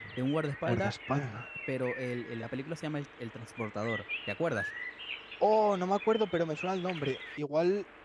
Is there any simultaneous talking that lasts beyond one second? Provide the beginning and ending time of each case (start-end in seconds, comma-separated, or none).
none